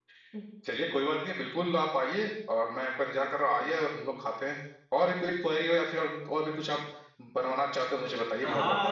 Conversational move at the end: taking over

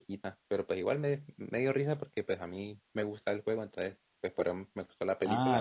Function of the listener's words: taking over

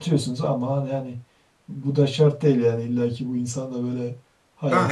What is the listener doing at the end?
taking over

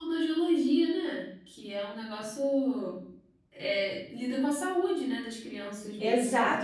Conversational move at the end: taking over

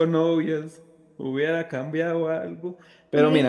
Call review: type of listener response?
listening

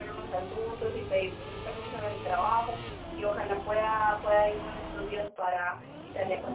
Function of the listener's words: taking over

